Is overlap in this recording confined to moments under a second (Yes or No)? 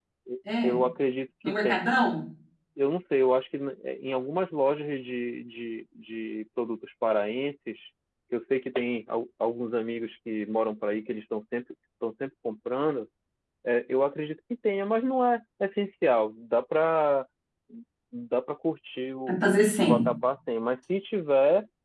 Yes